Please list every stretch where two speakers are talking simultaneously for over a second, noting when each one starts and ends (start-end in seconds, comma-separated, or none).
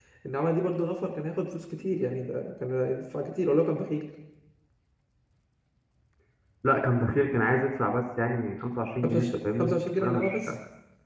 9.0-10.4